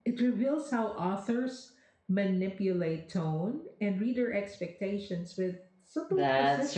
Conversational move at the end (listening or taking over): taking over